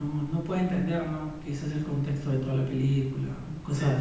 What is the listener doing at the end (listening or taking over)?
taking over